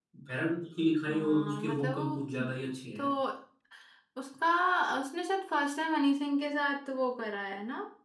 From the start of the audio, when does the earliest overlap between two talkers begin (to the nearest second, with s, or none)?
1 s